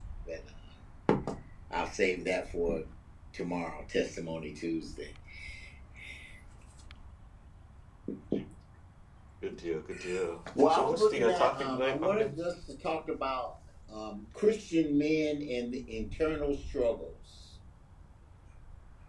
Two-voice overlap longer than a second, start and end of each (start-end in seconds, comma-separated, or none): 10.7-12.3